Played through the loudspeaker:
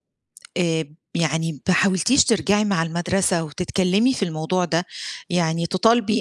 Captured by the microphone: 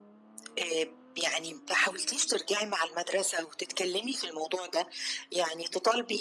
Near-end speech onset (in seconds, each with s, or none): none